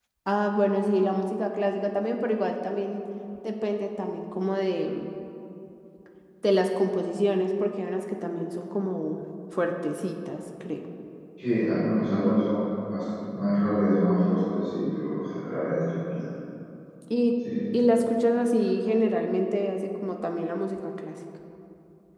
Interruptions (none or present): none